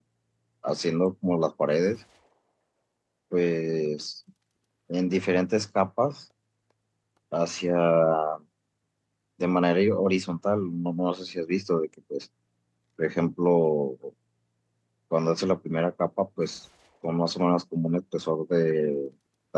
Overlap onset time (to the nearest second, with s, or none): none